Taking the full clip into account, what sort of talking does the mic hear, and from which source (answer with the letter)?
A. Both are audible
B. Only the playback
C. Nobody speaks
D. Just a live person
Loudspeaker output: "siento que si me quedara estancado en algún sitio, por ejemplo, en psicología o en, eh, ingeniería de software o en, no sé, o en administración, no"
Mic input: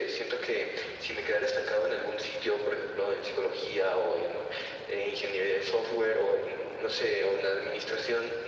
B